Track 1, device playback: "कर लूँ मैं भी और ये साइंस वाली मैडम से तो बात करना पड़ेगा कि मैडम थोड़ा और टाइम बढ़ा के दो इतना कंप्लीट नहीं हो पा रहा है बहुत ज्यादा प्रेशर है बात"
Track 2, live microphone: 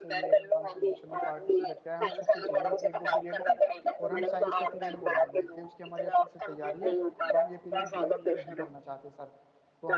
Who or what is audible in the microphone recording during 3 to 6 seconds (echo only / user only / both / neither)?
both